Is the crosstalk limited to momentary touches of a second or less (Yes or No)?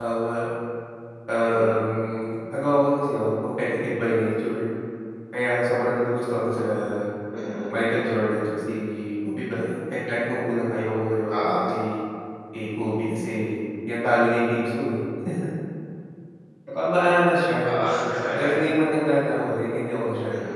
Yes